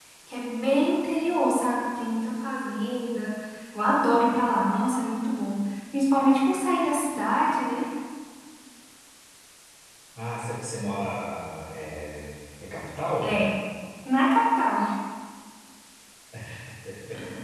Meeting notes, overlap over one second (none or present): none